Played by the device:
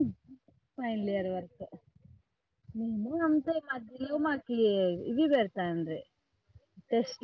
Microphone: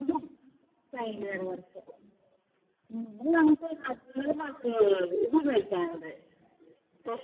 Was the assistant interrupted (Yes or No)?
No